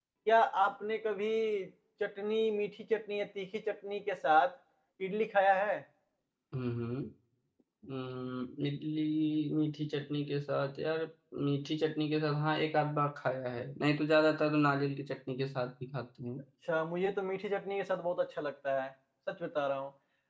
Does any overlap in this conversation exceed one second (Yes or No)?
No